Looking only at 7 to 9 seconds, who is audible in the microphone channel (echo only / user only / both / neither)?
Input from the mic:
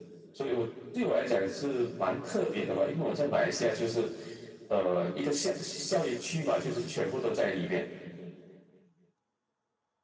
echo only